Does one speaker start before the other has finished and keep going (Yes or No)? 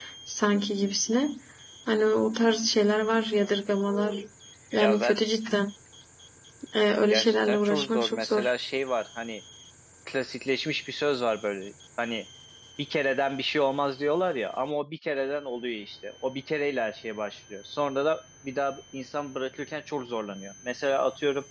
Yes